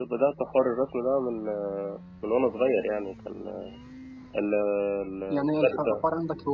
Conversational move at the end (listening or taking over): taking over